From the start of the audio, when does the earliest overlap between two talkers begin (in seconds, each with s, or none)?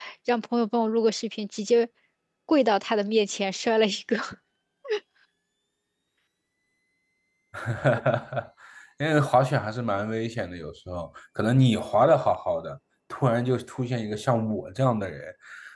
none